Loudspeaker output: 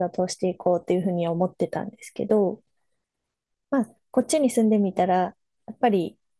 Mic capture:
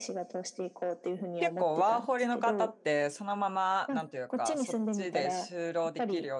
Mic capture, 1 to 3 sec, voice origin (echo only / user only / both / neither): both